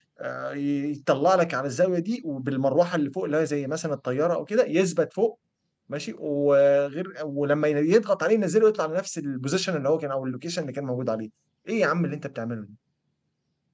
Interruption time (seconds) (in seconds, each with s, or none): none